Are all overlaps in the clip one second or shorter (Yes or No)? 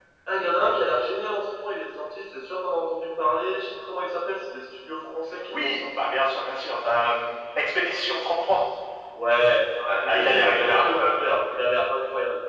No